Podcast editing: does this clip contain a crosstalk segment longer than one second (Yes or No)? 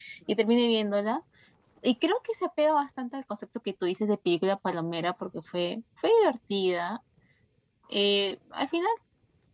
No